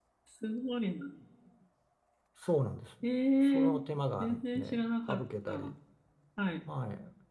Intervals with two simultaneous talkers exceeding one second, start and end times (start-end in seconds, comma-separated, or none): 4.2-5.7